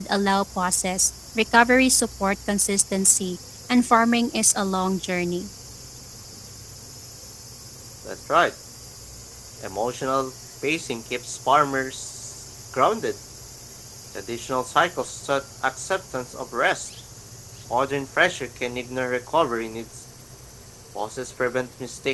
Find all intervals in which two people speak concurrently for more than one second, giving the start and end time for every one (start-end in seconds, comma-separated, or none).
none